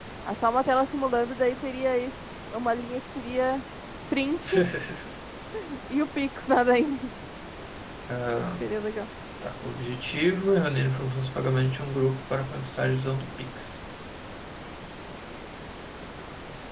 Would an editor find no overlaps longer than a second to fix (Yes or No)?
Yes